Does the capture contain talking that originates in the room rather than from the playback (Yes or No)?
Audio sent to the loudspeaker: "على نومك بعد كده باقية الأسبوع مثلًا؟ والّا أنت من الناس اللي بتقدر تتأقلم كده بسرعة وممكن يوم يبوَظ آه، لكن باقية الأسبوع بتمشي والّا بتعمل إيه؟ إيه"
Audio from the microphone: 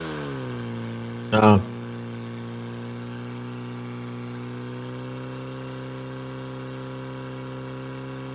Yes